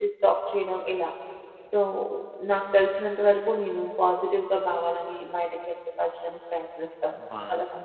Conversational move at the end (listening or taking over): taking over